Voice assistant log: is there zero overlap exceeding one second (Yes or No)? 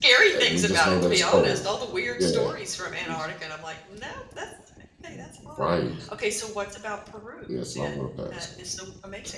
No